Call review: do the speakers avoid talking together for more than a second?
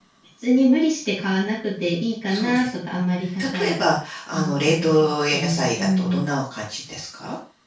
No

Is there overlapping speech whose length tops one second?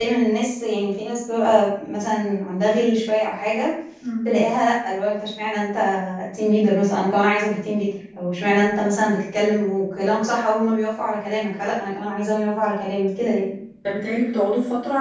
No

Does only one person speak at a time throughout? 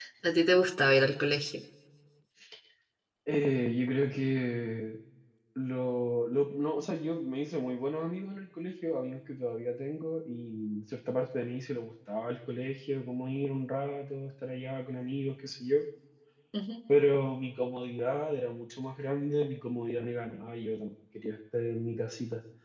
Yes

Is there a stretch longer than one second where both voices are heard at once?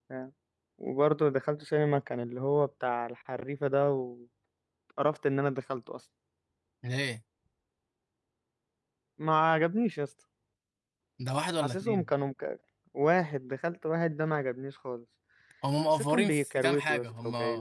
Yes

